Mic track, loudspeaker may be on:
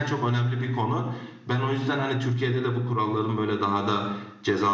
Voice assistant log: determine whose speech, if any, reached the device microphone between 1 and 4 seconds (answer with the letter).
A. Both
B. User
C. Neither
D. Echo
D